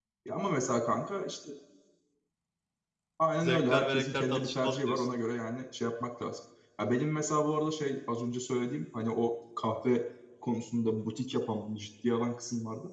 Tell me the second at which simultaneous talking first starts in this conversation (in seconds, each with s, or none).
3.4 s